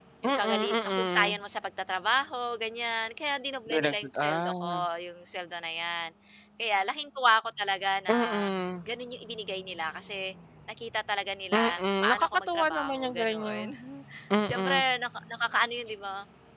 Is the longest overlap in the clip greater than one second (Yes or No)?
Yes